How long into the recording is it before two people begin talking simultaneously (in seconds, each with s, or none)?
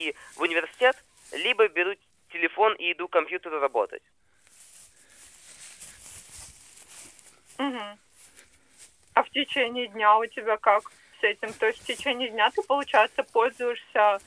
none